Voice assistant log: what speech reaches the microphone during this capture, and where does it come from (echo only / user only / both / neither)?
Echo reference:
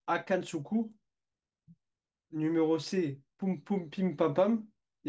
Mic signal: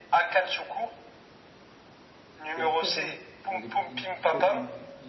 both